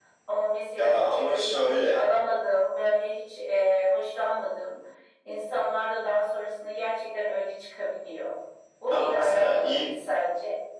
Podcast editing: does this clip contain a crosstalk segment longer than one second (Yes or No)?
Yes